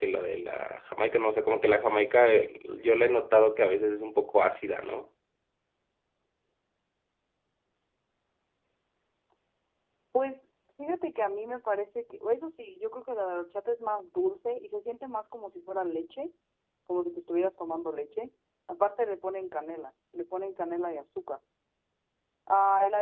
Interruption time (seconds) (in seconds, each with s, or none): none